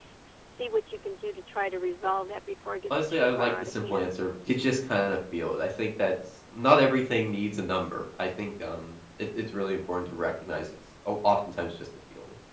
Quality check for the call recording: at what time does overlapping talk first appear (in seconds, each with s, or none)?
2.9 s